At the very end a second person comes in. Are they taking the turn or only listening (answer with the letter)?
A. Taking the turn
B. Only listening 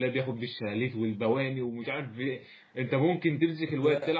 B